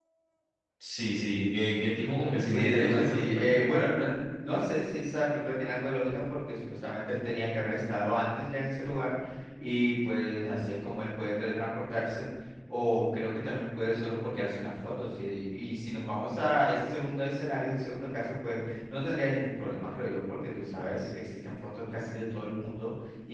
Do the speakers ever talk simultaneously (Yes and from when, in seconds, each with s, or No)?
Yes, from 2.0 s